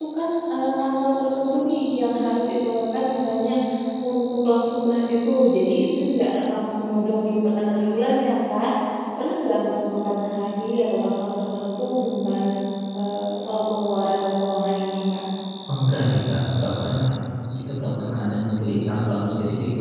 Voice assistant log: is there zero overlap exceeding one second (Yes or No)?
Yes